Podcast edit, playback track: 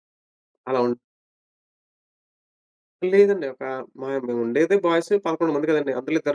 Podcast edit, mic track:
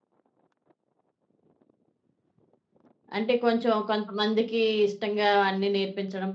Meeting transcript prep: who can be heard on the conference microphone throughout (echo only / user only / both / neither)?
user only